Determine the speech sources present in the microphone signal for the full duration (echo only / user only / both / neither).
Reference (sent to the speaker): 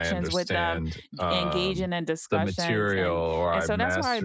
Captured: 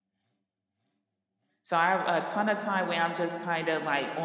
user only